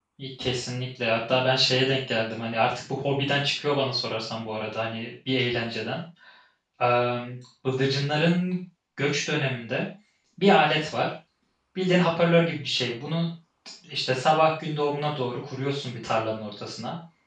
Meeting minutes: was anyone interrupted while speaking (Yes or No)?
No